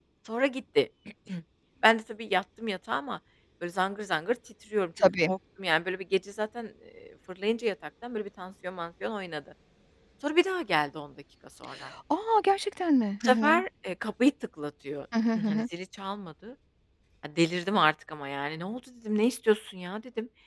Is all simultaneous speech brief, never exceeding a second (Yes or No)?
Yes